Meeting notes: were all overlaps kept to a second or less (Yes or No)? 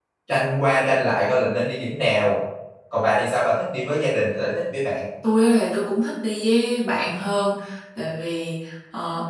Yes